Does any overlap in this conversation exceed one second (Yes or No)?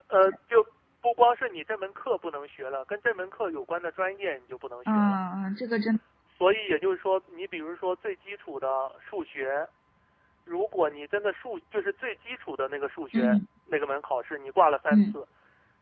No